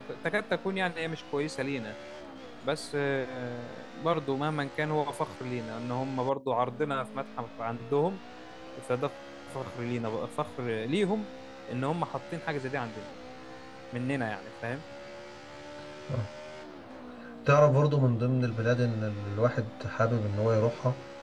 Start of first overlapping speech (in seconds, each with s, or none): none